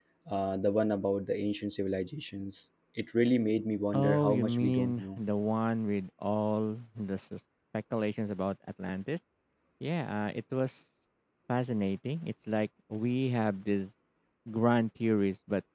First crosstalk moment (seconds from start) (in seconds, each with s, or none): 3.9 s